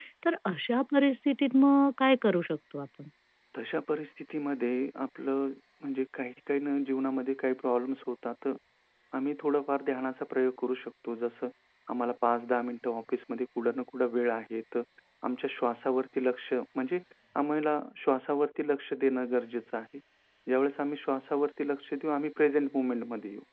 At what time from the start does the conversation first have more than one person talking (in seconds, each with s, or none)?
none